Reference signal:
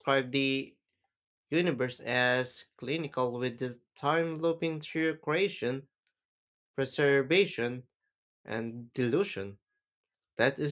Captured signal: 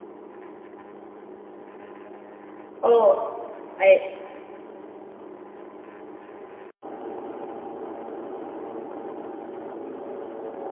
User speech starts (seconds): 2.8 s

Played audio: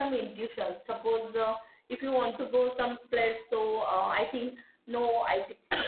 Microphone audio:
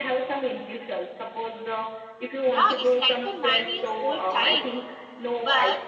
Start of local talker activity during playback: 2.5 s

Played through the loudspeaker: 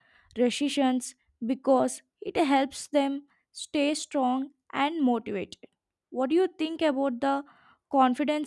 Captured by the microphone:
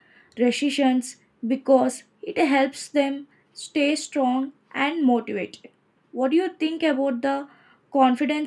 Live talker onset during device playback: none

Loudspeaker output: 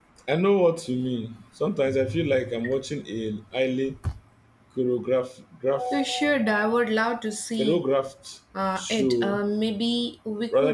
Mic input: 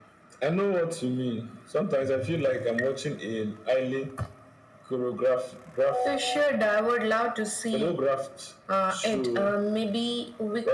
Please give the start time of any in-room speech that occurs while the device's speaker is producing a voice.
none

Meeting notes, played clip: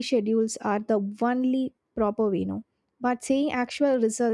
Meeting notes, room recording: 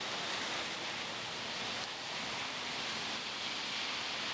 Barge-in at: none

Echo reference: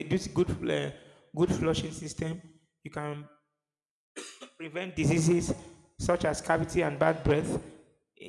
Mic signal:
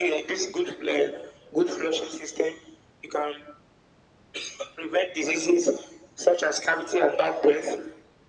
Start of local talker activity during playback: none

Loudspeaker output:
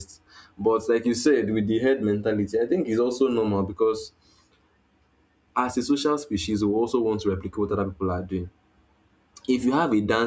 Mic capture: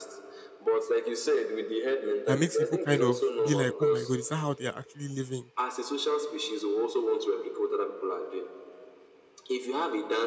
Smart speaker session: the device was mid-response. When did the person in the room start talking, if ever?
2.3 s

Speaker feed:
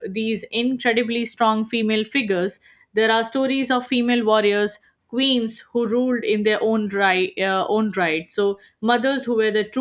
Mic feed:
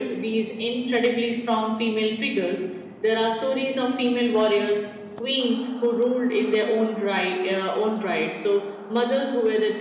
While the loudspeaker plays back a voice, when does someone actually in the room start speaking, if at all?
none

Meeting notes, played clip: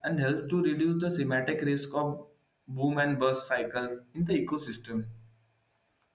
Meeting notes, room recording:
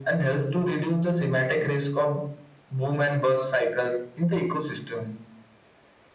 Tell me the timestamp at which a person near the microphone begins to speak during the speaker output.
none

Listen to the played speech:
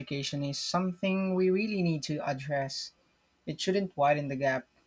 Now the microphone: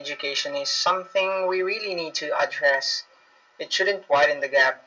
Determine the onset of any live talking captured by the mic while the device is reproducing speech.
none

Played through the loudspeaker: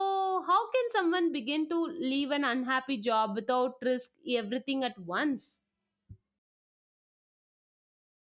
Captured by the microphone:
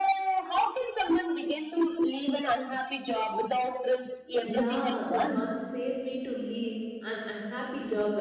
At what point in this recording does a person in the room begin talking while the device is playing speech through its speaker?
4.4 s

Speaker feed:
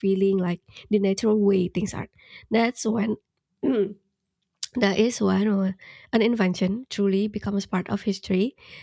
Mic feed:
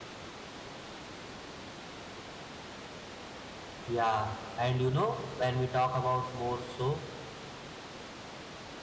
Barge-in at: 3.9 s

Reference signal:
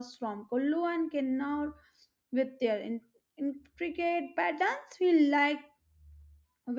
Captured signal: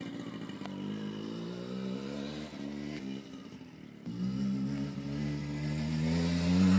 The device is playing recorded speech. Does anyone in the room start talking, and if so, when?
none

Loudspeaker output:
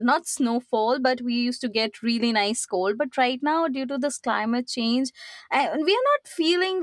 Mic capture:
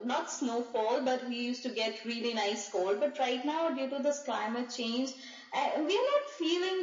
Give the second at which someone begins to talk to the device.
none

